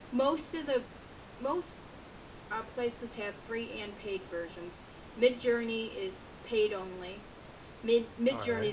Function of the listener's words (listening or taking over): listening